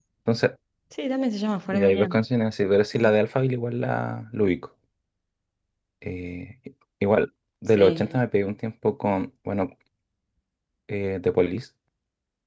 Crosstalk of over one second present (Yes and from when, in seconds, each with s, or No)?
No